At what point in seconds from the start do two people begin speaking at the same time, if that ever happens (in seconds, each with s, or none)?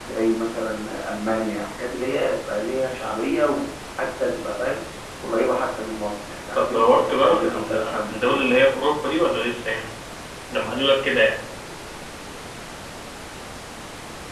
6.6 s